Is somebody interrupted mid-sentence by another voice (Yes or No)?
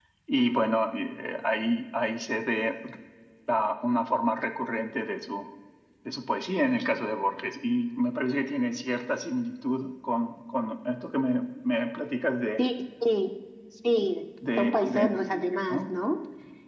Yes